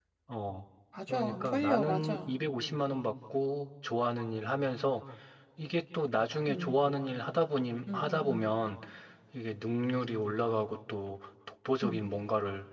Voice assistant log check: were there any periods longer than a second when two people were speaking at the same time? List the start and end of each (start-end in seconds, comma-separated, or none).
1.1-2.3